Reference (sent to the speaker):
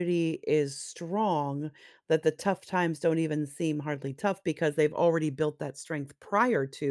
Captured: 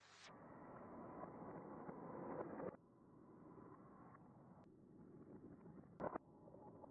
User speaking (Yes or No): No